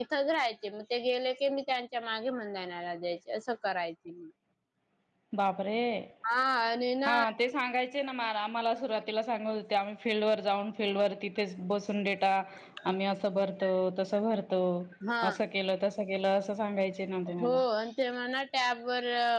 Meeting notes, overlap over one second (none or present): none